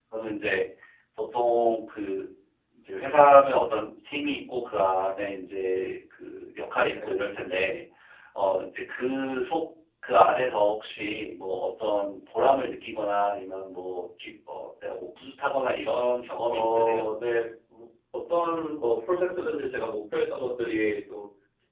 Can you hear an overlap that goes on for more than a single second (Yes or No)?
No